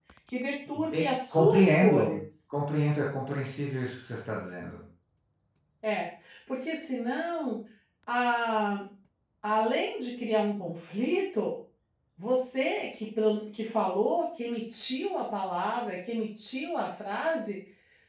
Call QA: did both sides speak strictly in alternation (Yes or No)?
No